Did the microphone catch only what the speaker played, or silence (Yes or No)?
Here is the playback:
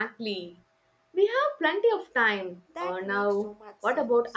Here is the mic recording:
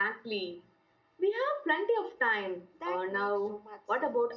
Yes